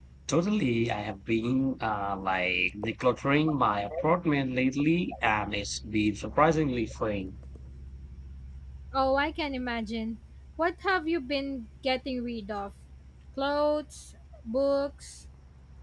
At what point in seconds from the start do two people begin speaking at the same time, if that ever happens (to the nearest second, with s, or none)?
none